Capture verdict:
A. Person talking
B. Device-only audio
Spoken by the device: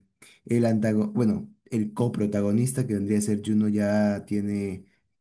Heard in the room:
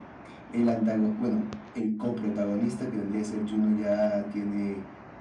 B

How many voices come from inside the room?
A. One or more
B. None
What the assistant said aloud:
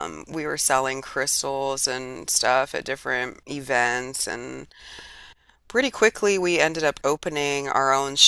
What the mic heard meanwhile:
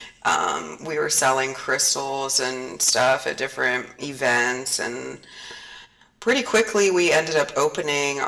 B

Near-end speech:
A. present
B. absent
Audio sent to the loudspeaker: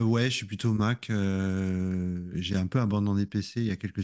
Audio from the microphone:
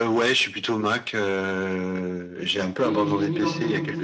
A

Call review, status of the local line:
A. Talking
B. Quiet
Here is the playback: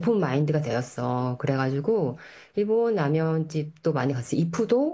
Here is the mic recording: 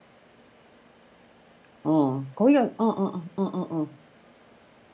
A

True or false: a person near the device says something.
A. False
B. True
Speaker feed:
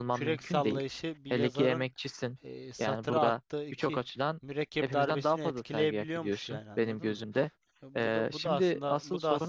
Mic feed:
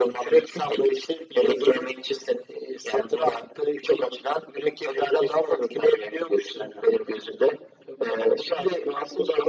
A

